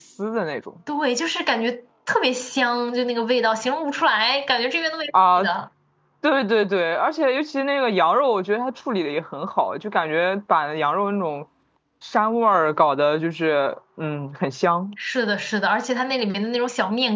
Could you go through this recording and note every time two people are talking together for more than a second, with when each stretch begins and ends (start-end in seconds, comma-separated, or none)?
none